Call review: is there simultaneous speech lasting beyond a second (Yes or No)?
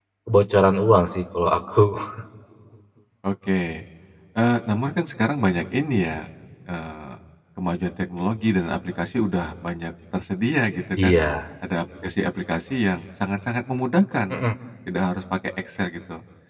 No